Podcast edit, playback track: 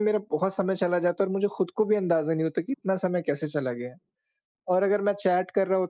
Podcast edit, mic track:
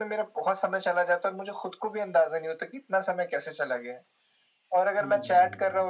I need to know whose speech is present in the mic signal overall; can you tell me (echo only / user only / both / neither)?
both